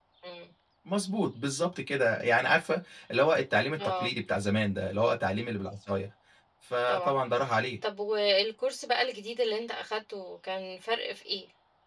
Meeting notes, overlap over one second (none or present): none